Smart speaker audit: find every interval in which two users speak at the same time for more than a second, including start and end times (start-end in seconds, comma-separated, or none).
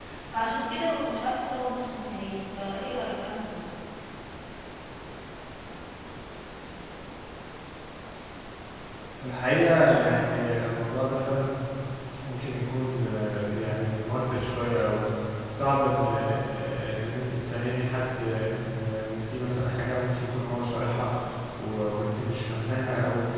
none